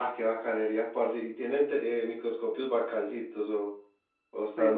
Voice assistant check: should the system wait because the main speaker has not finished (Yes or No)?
No